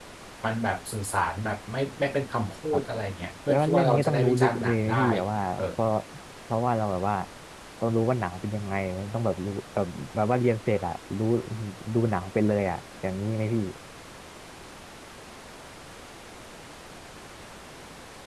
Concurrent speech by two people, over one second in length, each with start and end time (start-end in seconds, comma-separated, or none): 3.5-5.1